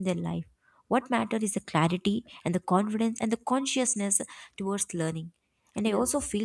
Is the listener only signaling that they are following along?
Yes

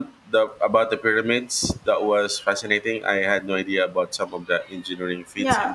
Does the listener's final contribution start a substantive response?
Yes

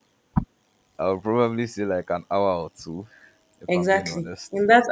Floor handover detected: Yes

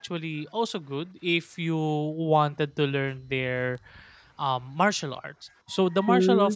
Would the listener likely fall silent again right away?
Yes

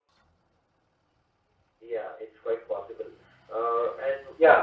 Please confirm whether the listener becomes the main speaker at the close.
Yes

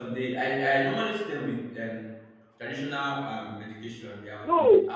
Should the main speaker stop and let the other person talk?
Yes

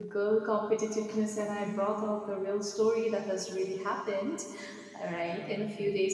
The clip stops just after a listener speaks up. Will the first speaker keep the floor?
Yes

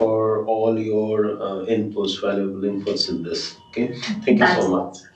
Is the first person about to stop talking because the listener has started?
Yes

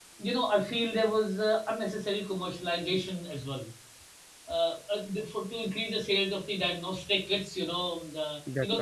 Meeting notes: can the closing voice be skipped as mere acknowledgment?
Yes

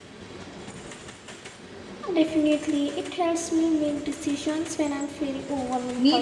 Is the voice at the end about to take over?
Yes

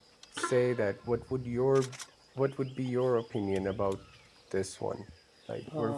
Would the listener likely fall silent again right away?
No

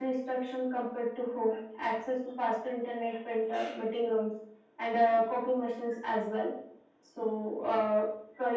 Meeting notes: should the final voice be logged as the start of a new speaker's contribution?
No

